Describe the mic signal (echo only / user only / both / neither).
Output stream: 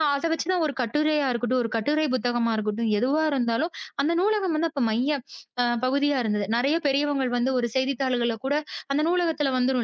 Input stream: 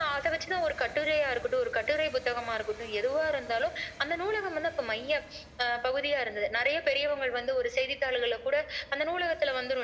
echo only